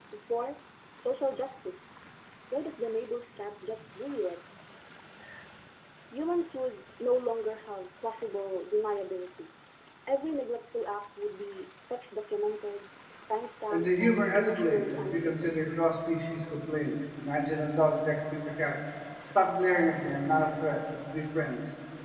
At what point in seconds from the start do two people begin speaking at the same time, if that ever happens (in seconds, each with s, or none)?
13.7 s